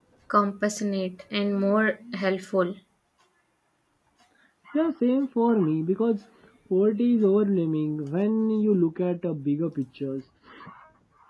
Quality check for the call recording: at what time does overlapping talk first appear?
none

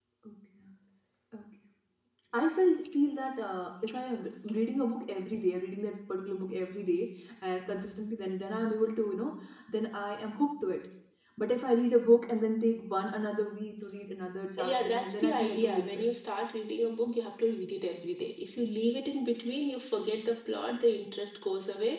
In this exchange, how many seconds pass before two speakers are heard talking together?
15 s

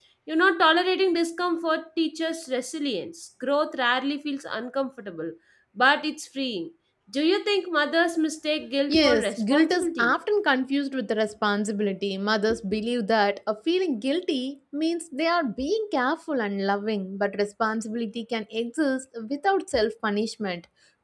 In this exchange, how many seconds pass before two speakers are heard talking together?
9 s

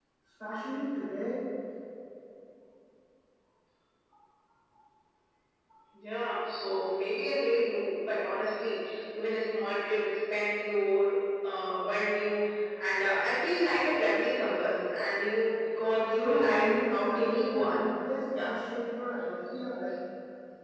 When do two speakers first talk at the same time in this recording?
16 s

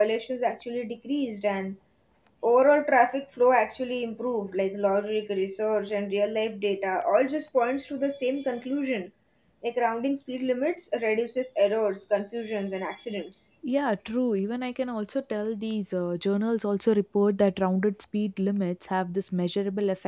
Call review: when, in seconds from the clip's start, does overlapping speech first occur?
none

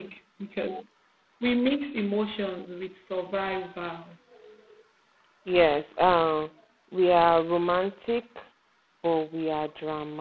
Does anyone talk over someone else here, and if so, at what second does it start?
none

